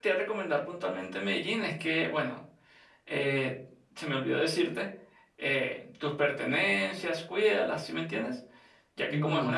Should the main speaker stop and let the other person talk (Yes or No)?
No